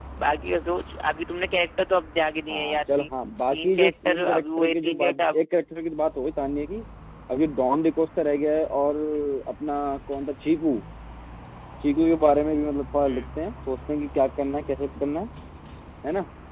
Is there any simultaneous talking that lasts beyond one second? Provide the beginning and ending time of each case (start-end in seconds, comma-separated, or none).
3.5-5.4